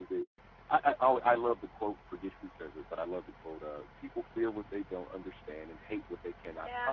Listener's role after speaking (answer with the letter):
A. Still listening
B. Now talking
B